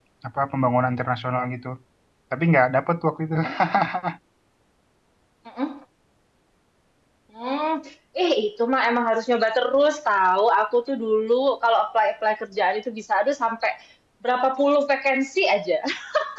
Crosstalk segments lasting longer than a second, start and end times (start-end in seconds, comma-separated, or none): none